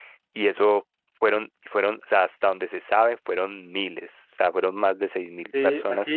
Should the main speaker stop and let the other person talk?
Yes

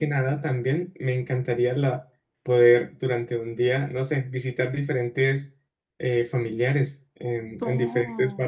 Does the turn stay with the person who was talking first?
No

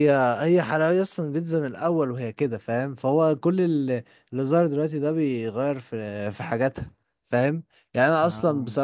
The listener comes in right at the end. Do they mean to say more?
No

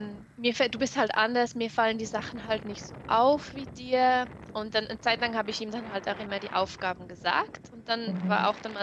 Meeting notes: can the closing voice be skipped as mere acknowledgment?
Yes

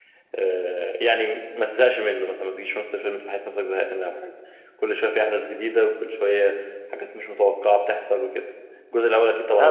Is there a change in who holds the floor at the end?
Yes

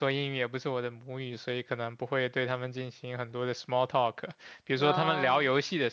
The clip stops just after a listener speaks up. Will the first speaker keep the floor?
Yes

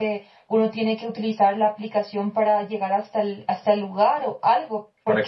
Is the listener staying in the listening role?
No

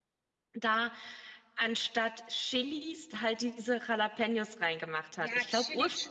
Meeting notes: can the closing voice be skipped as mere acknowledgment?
No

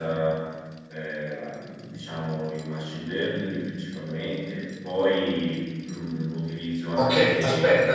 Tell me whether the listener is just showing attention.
No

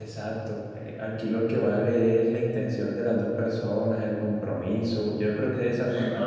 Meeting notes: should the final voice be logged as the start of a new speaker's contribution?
No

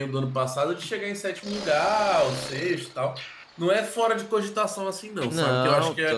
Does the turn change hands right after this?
Yes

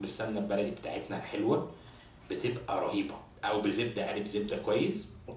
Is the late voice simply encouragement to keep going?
No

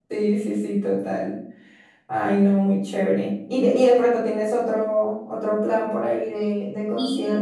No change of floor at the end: No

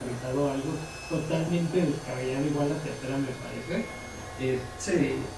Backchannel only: Yes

